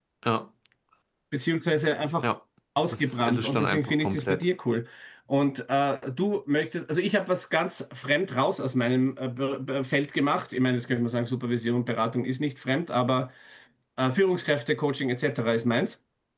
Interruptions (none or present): present